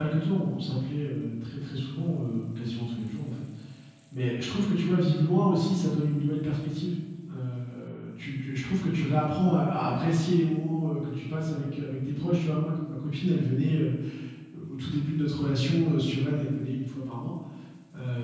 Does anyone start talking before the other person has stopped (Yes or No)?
No